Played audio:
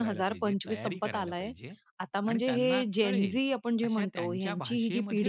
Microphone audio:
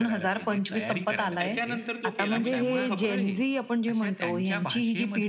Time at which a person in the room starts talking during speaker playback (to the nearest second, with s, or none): 1 s